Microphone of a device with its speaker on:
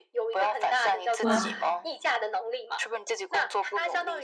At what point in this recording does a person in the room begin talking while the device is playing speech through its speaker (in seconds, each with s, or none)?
1.2 s